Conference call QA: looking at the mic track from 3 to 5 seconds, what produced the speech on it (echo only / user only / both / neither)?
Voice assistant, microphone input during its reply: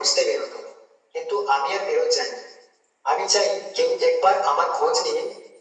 echo only